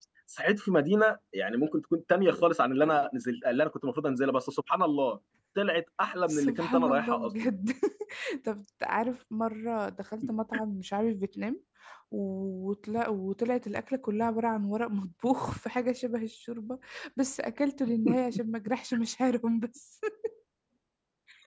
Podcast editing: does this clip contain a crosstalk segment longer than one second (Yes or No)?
Yes